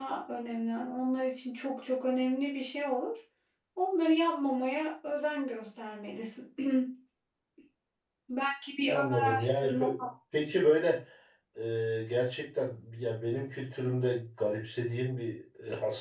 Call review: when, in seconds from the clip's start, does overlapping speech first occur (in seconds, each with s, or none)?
8.9 s